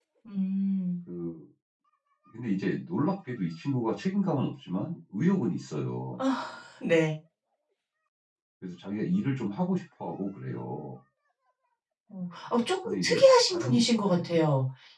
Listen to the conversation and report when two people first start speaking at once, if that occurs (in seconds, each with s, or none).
12.8 s